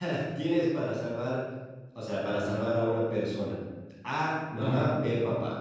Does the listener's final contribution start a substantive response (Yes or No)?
No